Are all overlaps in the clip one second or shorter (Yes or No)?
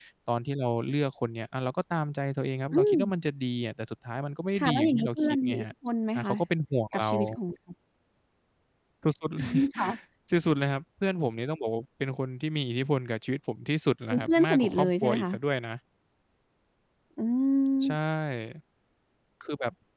No